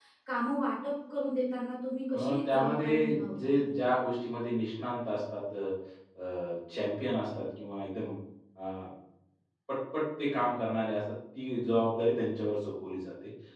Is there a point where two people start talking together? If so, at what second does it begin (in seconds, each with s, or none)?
2.1 s